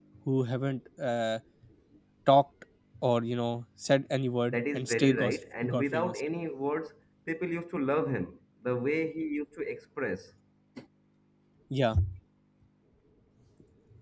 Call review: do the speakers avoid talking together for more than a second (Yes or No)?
No